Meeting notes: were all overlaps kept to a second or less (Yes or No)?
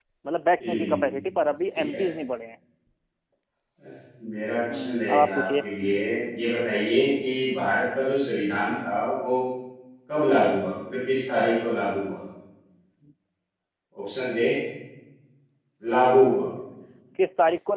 No